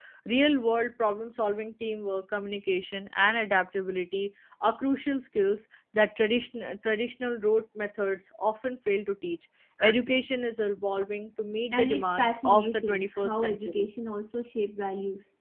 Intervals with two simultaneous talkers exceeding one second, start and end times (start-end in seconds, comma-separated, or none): 11.7-13.9